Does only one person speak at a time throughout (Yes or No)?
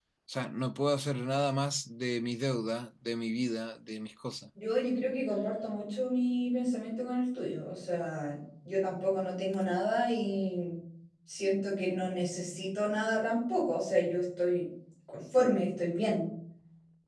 Yes